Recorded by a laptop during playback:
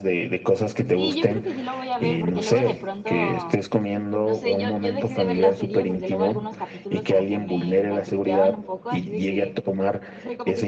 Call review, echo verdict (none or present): present